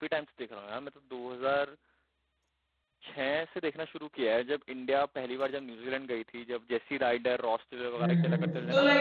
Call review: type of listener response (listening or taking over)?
taking over